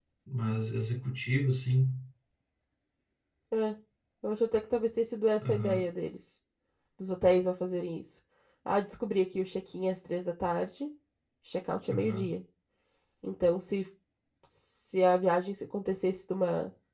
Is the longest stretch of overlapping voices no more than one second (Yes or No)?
Yes